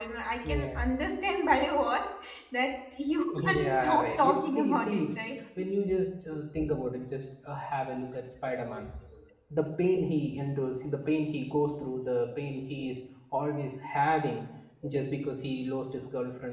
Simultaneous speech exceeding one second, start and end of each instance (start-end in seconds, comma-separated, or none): 3.3-5.1